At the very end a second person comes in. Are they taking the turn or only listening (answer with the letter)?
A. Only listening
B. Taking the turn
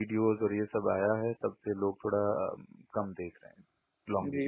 B